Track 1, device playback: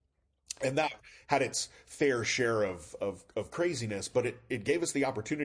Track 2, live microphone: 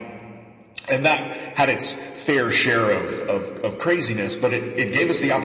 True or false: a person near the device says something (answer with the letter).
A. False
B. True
A